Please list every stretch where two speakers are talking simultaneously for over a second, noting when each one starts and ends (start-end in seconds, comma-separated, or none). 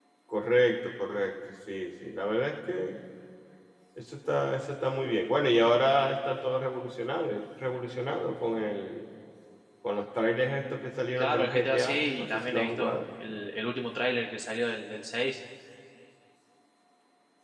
11.2-13.0